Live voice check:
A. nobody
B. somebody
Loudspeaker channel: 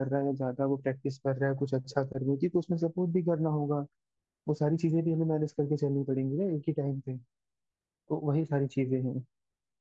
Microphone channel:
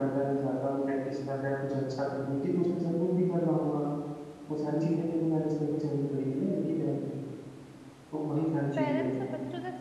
B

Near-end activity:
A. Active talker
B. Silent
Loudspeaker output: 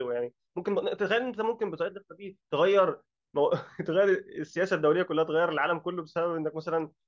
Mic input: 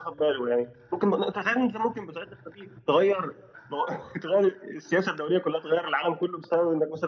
B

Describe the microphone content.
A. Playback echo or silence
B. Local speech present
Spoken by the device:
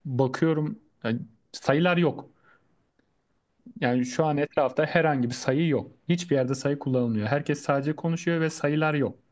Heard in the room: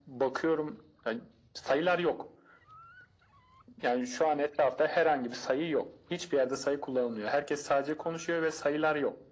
A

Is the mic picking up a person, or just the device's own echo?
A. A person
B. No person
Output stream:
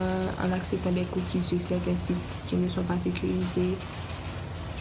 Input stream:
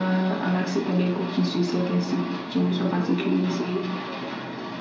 A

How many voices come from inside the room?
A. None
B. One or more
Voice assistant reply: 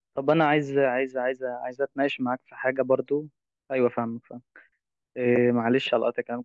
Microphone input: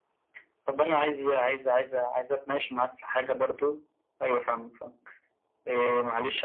A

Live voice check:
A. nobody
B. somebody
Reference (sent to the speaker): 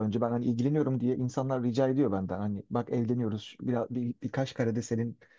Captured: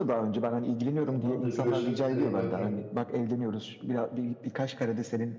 B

